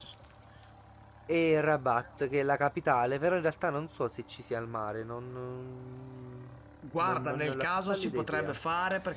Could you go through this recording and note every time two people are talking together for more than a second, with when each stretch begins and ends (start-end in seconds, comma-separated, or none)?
7.0-8.5